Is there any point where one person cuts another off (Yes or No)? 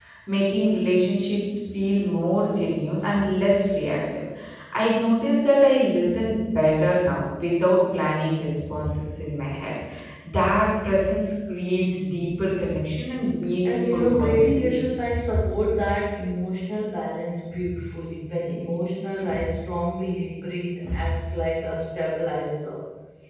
Yes